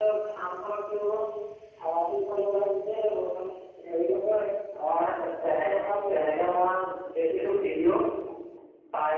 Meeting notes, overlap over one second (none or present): none